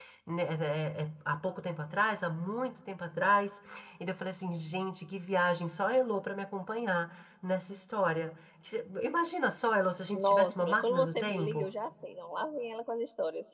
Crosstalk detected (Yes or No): Yes